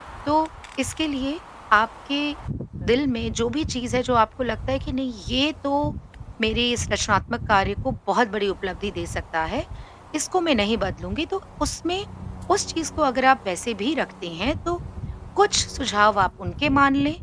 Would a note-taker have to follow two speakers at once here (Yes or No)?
No